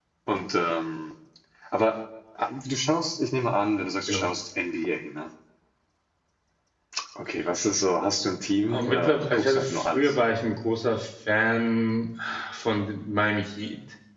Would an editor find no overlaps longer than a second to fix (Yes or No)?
No